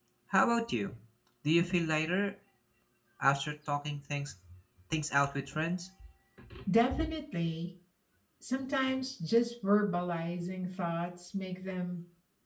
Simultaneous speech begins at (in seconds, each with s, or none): none